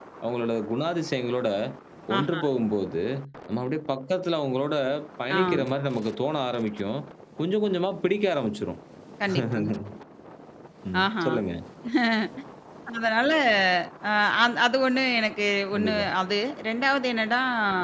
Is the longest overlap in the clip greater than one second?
No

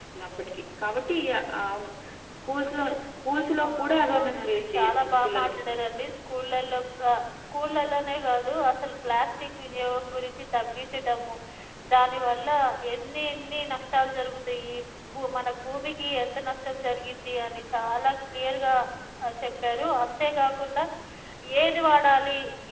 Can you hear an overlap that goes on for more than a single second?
Yes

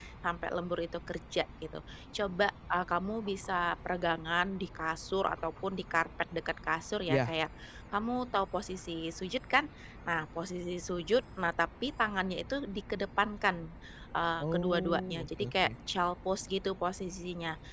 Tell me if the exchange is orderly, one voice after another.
No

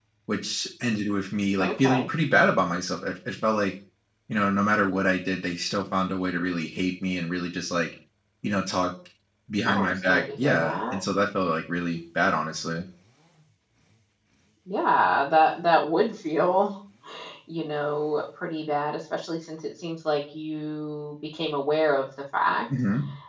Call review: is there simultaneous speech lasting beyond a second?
Yes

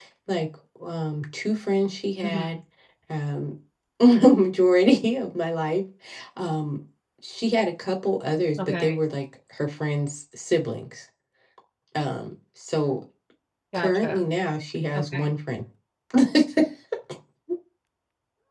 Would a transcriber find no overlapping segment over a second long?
Yes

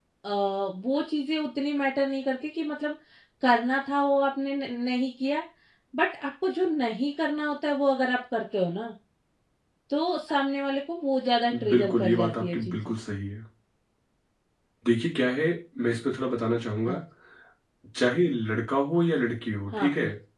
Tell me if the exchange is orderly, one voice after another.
No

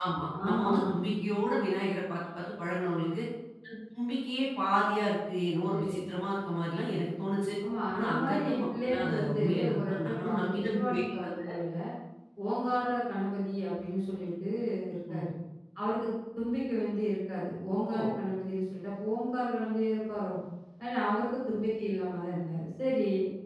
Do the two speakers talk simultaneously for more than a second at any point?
Yes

